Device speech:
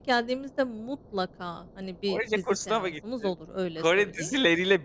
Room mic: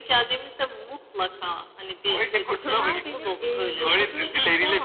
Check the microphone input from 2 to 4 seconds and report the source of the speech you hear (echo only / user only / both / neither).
both